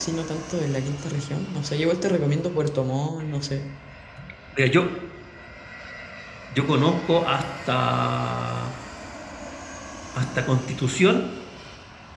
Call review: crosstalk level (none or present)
none